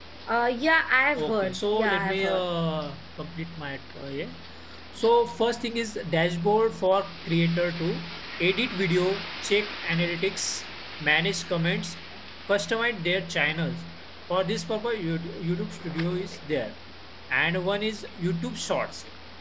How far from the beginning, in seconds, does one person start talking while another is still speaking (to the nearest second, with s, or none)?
1 s